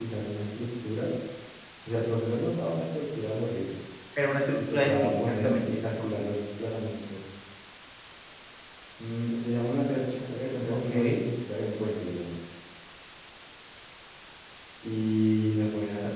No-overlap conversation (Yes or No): No